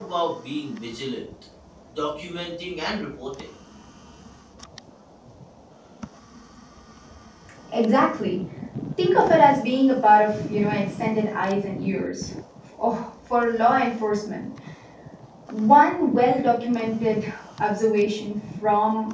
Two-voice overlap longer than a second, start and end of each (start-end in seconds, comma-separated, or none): none